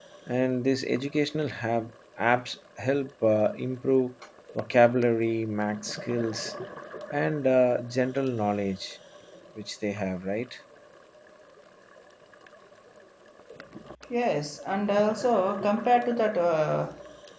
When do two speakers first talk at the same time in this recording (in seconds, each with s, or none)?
none